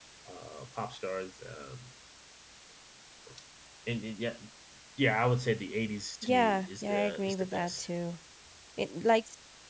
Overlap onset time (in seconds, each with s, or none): 6.2 s